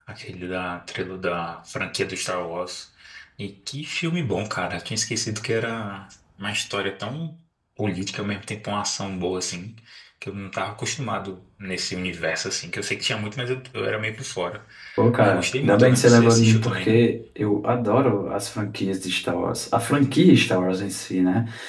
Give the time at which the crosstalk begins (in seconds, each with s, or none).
15.2 s